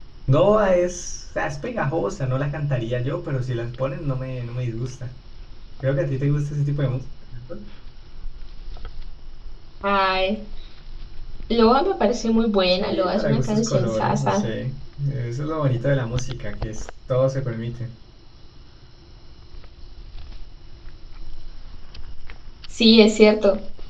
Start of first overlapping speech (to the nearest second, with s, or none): 13 s